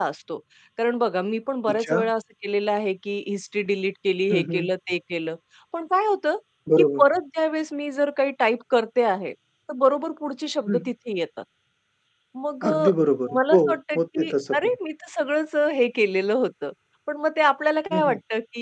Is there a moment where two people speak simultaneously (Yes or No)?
Yes